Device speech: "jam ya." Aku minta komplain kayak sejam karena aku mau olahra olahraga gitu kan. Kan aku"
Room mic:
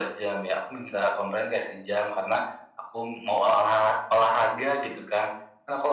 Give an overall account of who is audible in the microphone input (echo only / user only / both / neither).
echo only